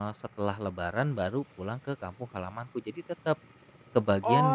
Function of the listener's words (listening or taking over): taking over